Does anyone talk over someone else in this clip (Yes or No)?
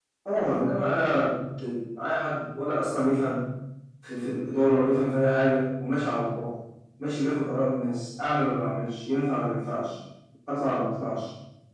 No